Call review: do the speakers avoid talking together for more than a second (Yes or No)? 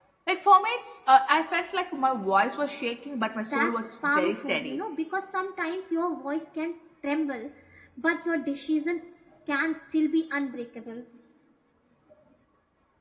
No